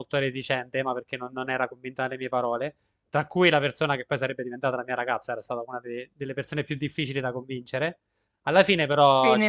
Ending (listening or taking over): taking over